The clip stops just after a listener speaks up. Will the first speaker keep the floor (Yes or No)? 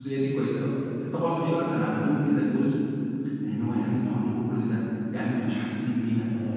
No